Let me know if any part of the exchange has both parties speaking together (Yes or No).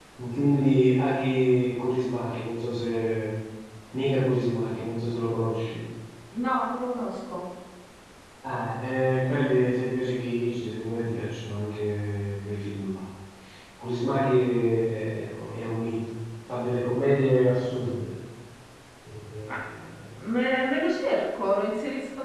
No